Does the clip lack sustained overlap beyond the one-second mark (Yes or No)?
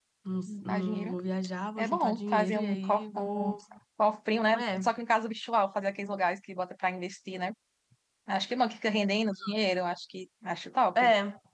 No